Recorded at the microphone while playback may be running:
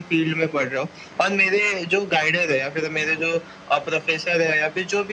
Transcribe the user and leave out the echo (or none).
none